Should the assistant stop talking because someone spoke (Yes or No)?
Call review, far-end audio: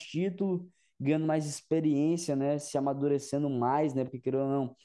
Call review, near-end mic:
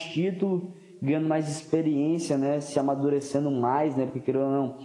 No